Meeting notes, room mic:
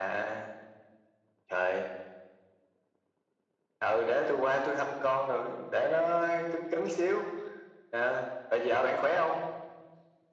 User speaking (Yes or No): No